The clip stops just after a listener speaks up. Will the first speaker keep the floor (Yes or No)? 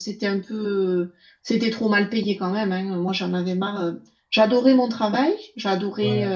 Yes